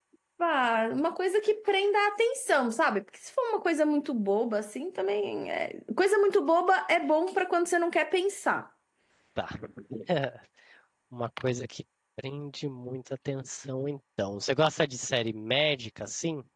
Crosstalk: none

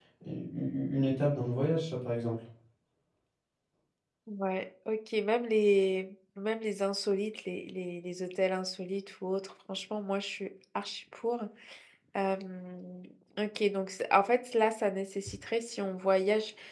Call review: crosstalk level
none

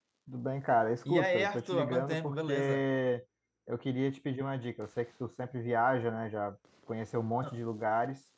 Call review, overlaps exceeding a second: present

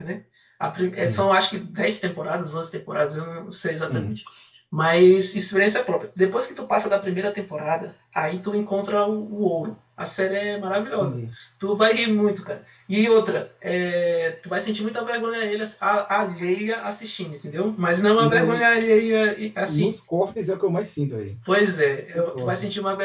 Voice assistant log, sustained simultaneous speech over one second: none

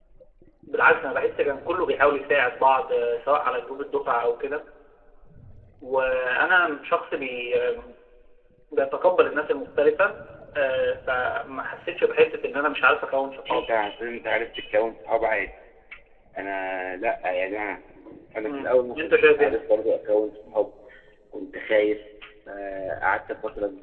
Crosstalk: present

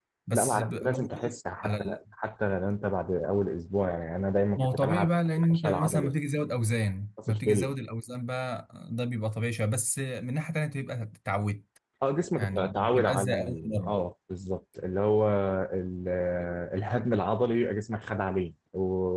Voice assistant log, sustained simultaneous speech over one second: present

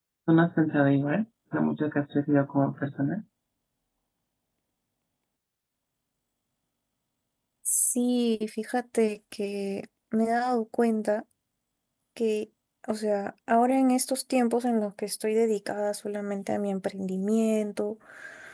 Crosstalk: none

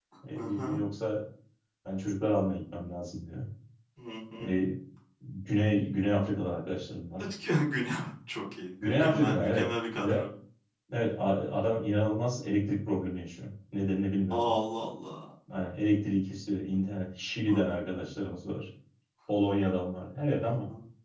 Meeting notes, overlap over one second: present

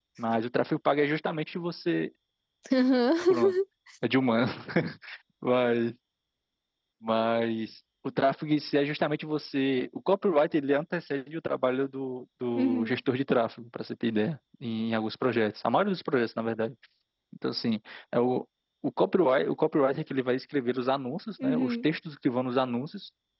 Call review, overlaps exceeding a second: none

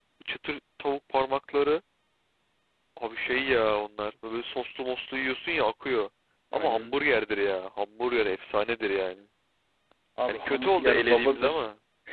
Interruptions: present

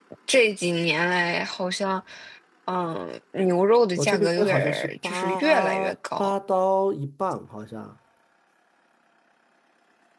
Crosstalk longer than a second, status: present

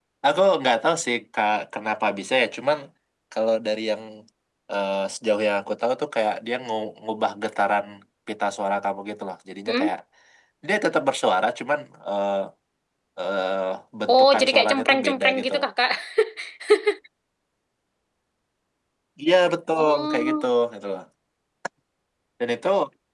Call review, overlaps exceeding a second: present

